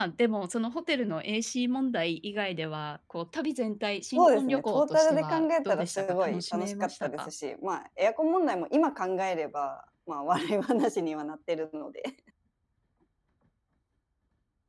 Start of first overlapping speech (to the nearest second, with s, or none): 4 s